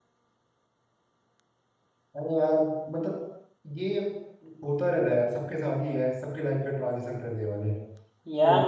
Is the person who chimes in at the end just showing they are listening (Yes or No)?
No